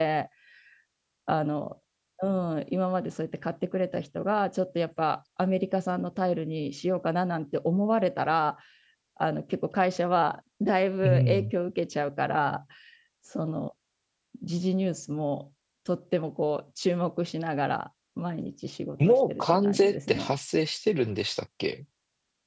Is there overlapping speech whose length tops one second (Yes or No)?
Yes